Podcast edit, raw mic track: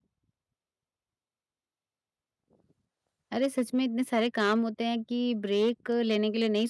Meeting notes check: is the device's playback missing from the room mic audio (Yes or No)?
Yes